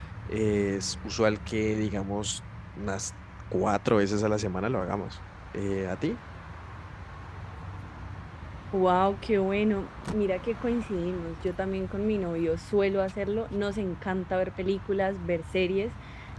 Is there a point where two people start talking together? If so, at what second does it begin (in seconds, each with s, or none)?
none